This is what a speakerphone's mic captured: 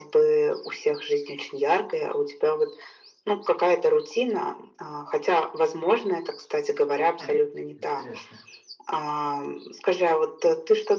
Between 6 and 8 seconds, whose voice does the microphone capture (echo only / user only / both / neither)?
both